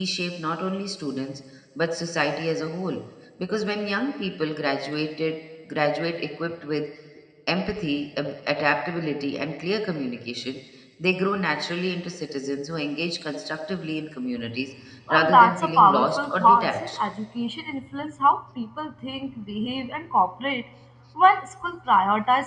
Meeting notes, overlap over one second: present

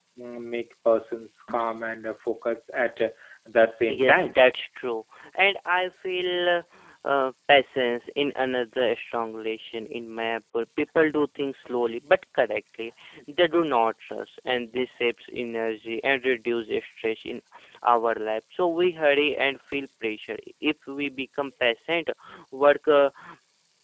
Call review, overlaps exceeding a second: none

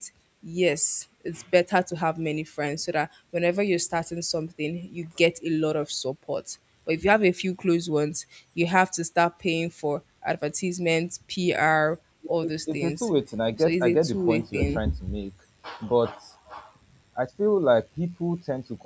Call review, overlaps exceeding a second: present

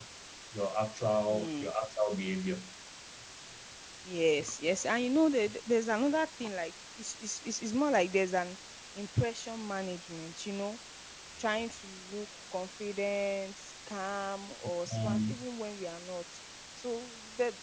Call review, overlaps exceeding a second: none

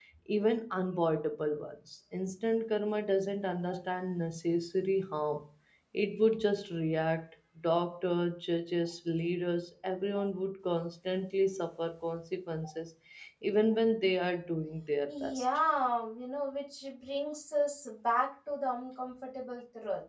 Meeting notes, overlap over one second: none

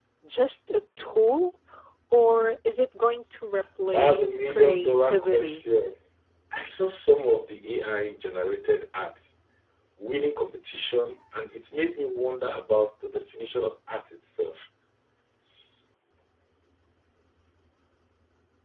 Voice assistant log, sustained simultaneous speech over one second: present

